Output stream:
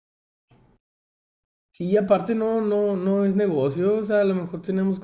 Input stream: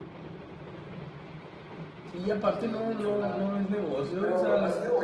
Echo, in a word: present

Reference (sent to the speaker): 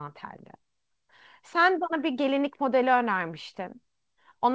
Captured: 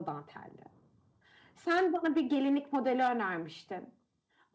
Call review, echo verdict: present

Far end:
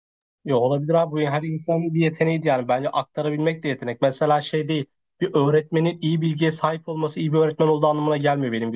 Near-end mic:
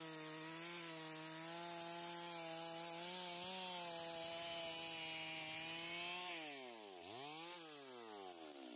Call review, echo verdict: none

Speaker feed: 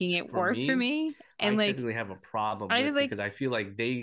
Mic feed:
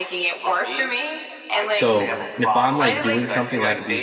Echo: present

